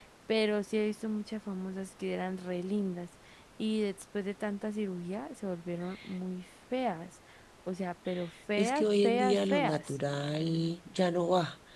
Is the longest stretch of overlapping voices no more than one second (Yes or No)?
No